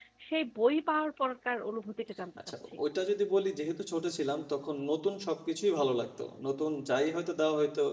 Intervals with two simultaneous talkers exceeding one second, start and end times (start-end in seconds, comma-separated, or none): none